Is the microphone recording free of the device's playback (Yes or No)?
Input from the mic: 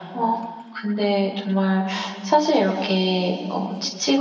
No